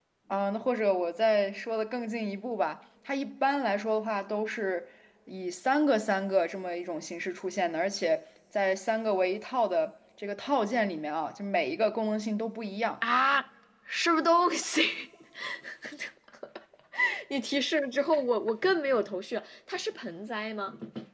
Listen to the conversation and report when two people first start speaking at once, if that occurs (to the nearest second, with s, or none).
none